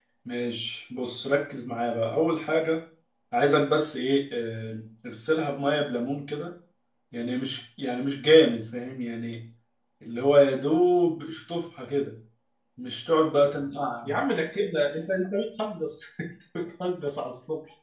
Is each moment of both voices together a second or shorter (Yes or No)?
Yes